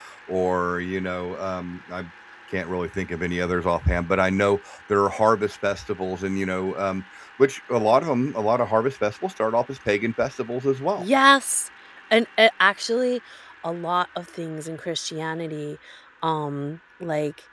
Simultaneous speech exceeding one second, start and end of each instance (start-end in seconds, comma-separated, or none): none